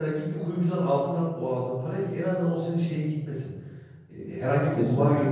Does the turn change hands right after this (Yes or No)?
No